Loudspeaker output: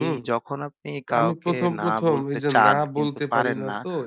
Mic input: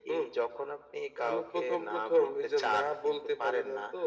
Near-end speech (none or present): none